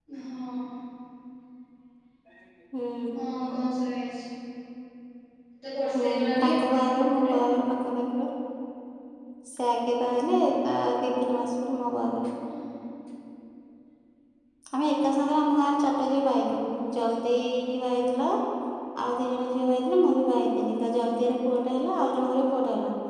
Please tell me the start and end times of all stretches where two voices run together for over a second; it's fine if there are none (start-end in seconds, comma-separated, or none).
6.0-7.4